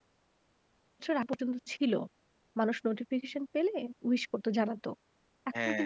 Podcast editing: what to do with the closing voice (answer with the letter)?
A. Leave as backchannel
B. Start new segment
A